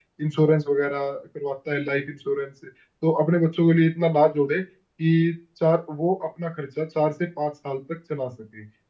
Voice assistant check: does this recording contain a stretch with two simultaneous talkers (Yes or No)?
No